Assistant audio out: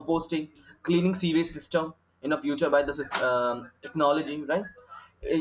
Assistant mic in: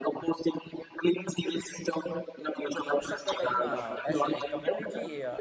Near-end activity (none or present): present